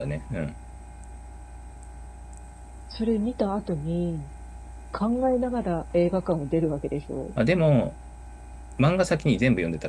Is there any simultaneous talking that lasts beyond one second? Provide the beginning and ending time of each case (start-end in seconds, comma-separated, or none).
none